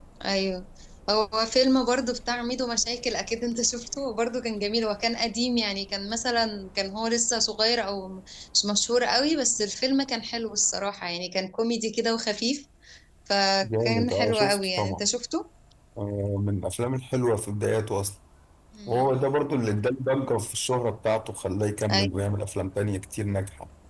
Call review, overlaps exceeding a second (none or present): present